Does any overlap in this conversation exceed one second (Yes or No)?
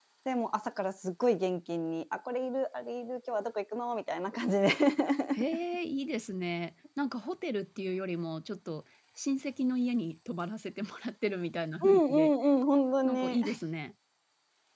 No